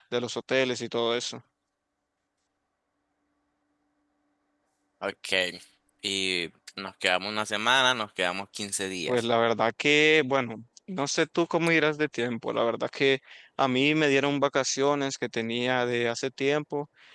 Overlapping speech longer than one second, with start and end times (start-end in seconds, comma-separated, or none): none